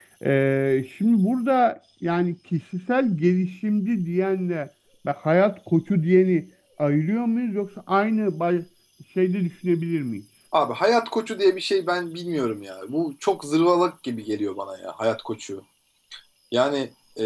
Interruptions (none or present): none